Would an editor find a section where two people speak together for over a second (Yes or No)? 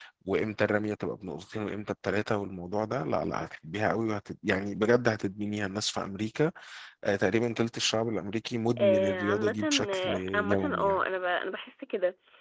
Yes